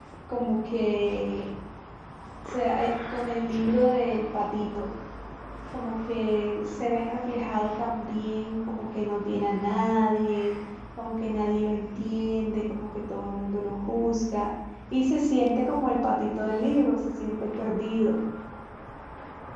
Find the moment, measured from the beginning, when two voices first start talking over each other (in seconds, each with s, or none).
none